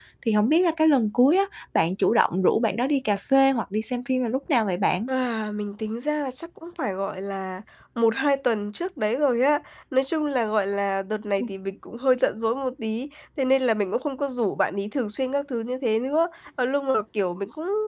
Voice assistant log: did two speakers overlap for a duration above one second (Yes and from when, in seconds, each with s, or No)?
No